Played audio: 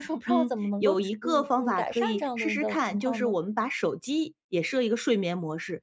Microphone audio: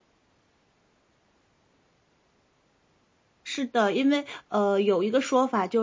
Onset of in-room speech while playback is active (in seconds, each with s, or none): 3.5 s